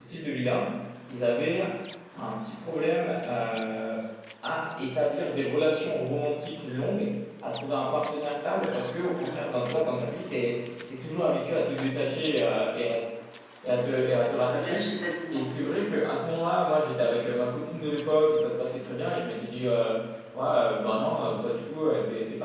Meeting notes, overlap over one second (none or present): none